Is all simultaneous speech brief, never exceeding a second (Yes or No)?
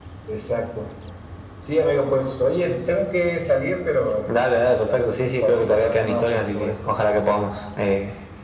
No